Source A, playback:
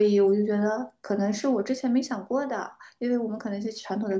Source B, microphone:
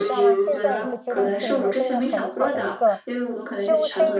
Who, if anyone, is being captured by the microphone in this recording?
both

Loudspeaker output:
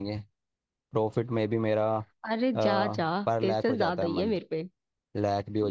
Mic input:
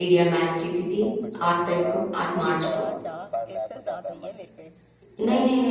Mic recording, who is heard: both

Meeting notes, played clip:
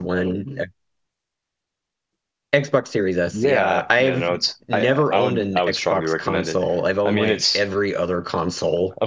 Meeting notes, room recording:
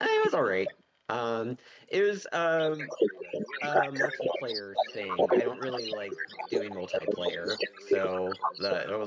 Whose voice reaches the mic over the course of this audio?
both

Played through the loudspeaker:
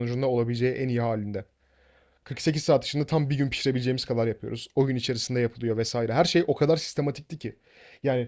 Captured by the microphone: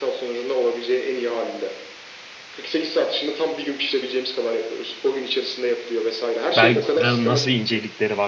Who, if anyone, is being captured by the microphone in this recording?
both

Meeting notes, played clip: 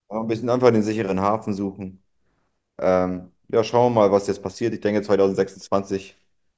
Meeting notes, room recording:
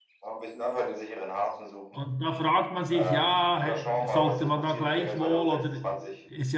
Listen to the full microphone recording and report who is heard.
both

